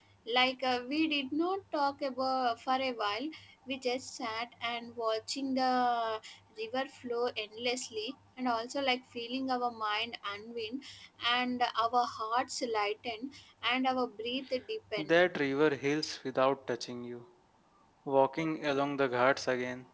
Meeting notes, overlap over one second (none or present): none